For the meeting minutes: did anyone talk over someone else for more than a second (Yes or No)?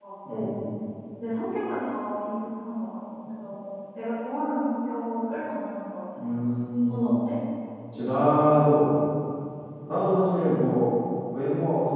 No